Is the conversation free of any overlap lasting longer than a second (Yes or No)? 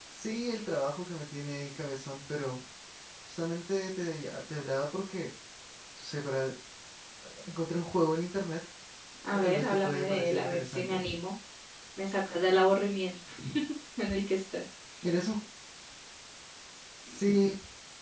No